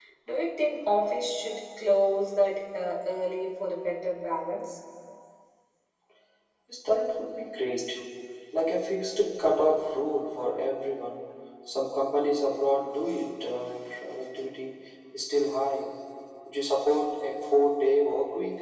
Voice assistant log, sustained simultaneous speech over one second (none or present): none